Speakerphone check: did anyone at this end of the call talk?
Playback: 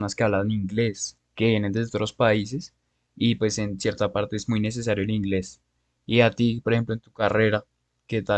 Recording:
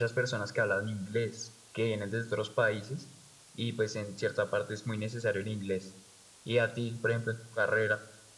No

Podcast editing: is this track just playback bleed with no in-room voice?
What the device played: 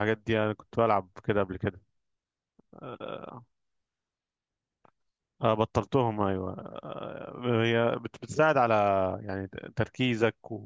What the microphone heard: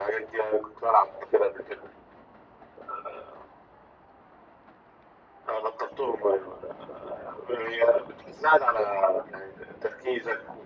Yes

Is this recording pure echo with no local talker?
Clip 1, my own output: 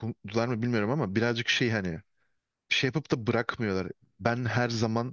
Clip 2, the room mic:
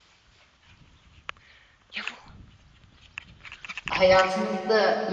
No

